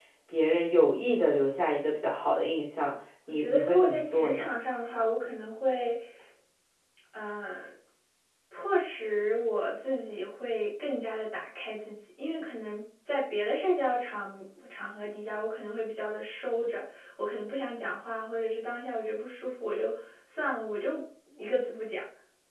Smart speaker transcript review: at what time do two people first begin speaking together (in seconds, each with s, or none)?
3.3 s